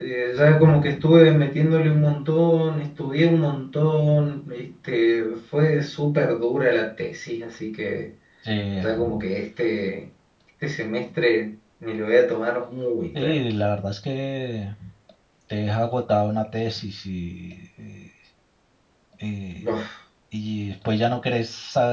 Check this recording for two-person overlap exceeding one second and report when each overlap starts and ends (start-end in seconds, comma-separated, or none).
none